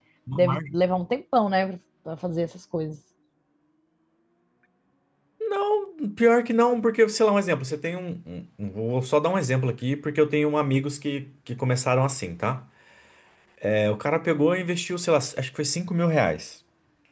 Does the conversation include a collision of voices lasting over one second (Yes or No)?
No